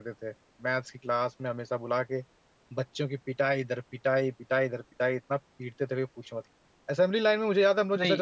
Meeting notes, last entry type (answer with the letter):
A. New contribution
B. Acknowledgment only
B